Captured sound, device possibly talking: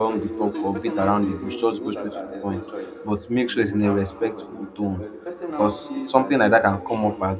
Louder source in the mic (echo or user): user